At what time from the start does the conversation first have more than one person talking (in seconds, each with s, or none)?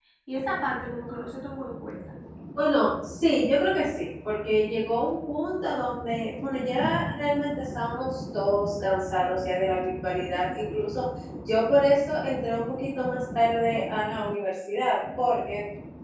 none